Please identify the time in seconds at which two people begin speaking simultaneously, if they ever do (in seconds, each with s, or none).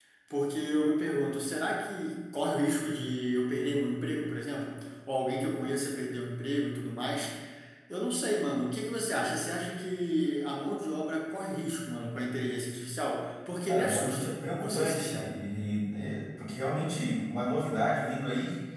13.7 s